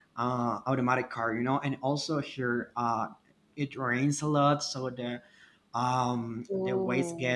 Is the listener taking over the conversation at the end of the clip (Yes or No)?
No